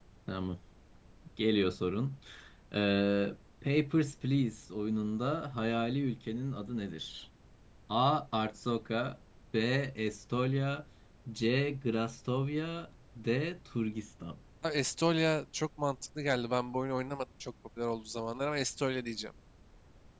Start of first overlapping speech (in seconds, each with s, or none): none